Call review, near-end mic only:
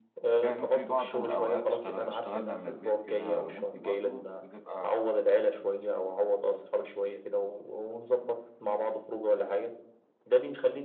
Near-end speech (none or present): present